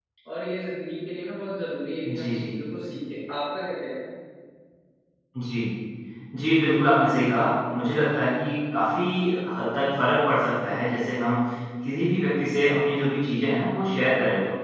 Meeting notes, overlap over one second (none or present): none